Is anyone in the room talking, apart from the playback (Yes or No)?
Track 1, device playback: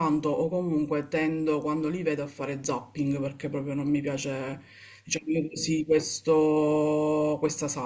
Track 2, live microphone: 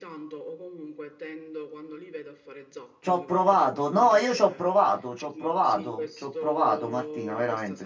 Yes